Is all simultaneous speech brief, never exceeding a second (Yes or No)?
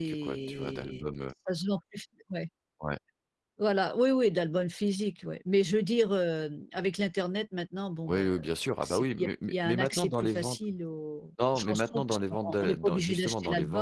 No